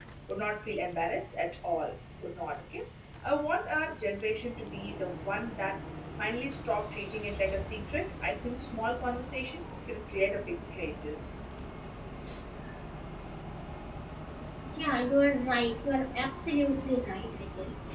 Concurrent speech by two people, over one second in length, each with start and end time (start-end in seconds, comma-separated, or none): none